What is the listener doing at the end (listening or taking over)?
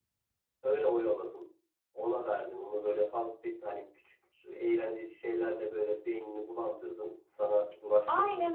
taking over